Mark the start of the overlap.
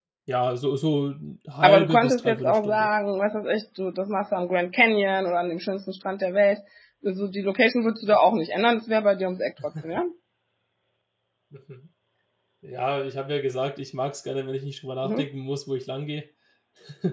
1.6 s

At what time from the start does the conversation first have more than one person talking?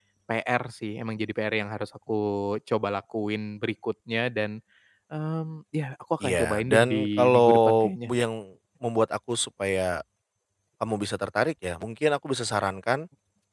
6.2 s

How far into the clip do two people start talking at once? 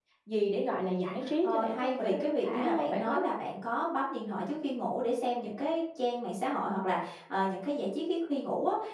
1.1 s

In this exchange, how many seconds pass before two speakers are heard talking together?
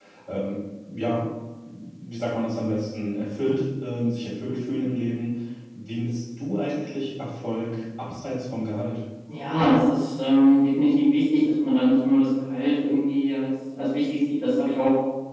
none

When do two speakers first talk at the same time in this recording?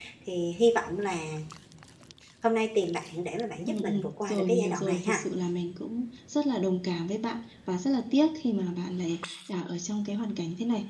3.7 s

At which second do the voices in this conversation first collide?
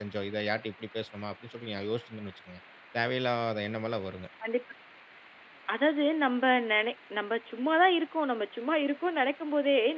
none

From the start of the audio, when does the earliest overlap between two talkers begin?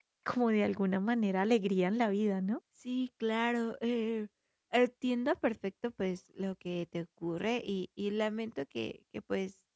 none

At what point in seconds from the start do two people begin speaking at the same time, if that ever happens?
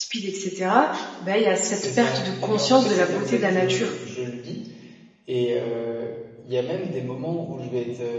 1.7 s

